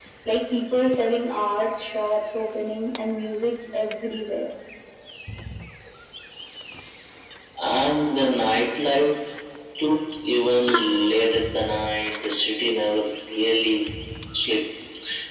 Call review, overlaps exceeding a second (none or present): none